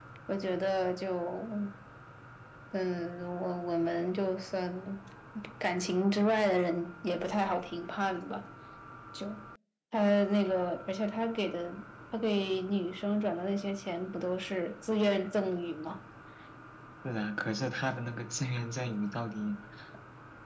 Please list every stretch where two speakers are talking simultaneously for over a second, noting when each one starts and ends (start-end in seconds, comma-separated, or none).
none